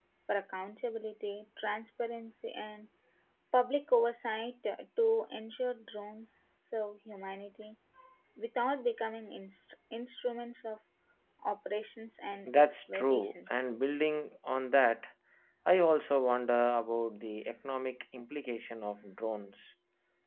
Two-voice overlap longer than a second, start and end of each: 12.4-13.7

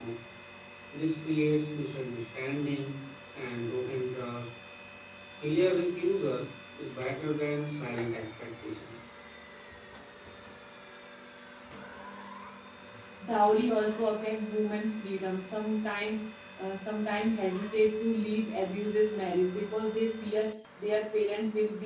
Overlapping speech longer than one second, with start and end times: none

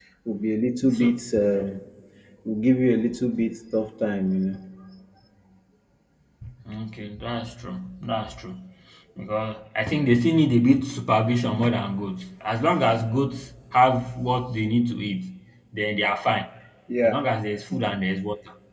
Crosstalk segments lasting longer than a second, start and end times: none

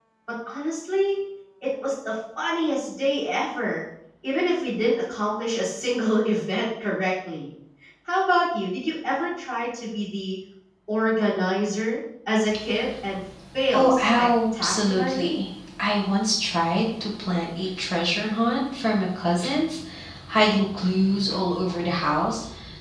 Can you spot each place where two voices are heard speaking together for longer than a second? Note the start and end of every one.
13.7-15.4

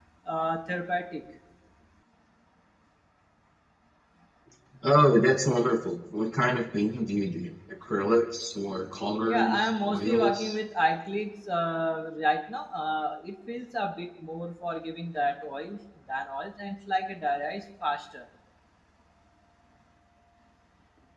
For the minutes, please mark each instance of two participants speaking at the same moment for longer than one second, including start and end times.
9.2-10.5

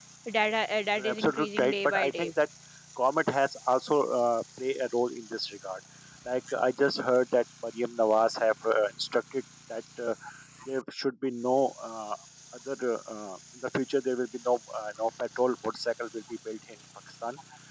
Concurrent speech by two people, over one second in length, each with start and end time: 1.0-2.3

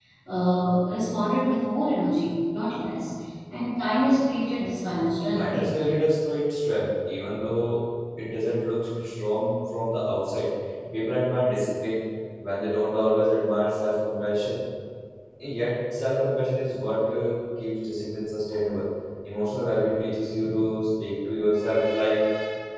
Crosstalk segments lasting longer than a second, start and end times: none

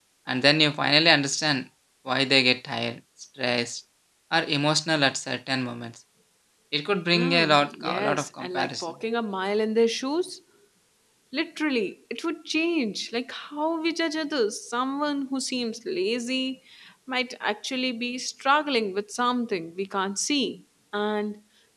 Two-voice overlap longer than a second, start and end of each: 7.1-8.8

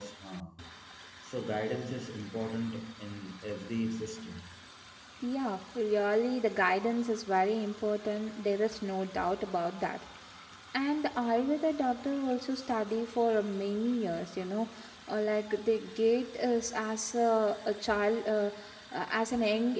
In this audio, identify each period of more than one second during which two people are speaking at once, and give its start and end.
none

